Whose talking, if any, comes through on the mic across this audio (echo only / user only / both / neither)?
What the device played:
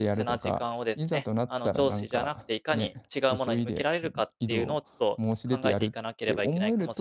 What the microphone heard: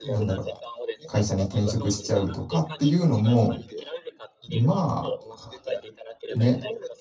both